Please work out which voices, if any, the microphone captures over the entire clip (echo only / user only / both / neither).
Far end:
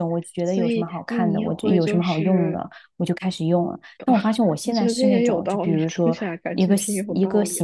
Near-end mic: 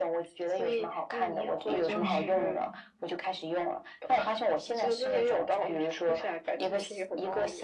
both